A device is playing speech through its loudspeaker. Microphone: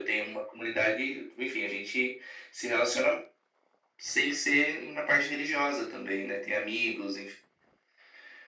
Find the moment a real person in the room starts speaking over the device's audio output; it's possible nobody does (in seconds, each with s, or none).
none